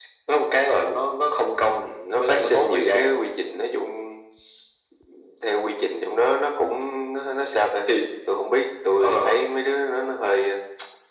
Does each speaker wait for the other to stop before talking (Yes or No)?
No